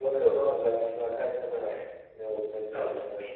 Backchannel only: No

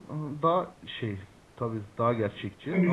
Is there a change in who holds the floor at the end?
Yes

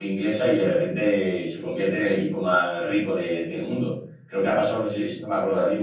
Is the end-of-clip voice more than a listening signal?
No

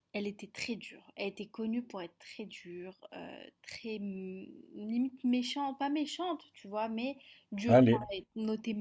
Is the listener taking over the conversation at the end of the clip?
No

